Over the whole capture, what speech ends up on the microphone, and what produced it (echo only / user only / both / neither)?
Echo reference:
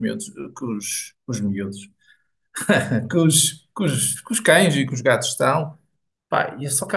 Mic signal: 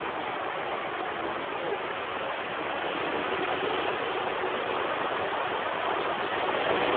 neither